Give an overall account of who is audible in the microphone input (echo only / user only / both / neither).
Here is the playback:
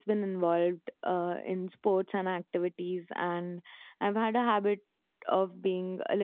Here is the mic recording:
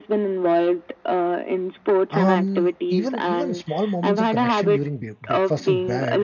both